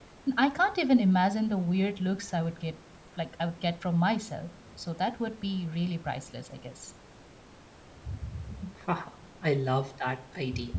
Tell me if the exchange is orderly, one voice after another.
Yes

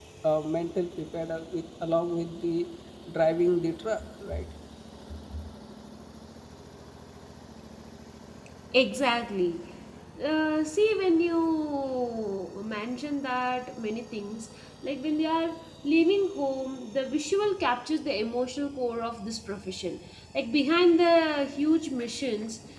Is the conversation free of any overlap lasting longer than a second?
Yes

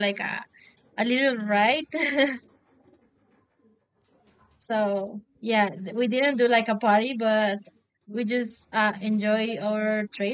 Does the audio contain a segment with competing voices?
No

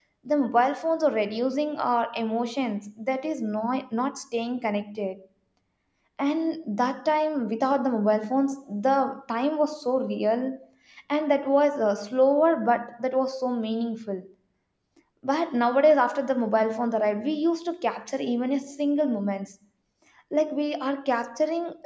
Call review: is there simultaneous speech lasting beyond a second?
No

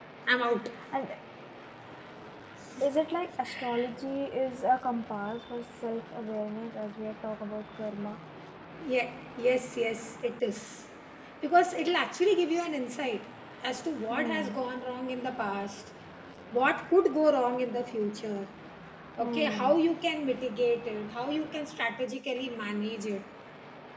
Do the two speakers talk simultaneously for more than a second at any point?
No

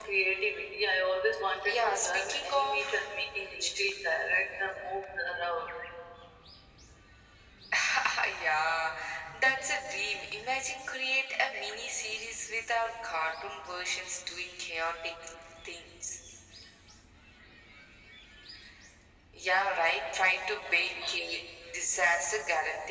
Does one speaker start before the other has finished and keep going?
Yes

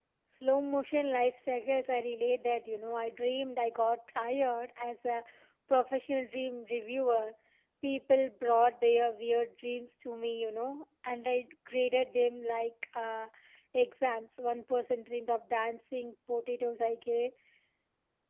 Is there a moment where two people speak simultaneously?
No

